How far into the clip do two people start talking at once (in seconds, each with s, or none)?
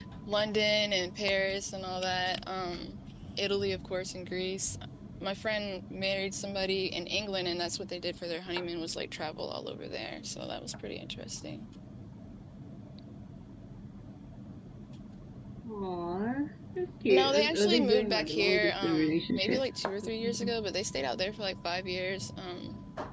17.1 s